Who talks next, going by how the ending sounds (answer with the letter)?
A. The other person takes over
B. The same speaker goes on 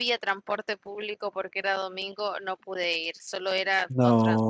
B